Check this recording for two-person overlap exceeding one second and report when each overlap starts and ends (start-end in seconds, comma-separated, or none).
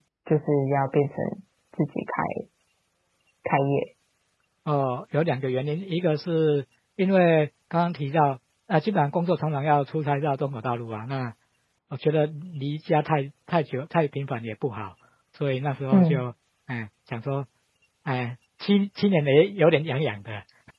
none